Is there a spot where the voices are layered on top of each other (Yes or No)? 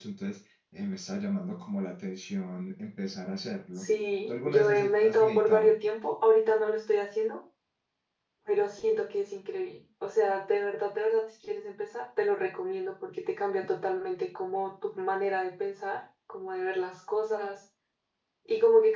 Yes